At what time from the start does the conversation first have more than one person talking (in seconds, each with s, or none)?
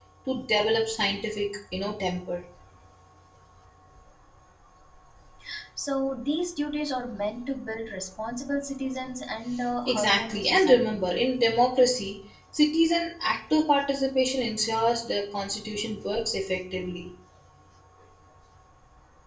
9.8 s